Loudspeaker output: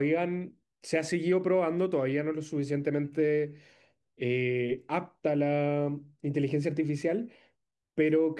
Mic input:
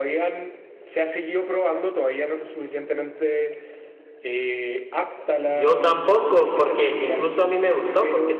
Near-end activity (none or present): present